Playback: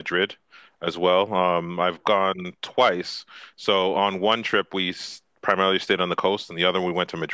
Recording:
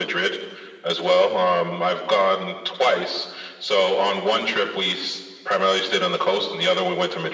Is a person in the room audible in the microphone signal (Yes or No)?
No